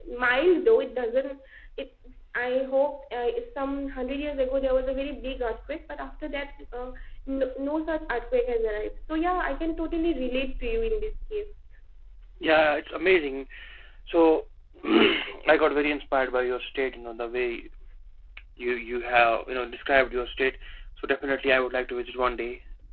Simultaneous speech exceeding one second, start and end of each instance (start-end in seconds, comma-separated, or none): none